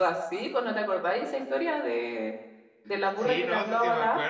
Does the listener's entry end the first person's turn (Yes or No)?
Yes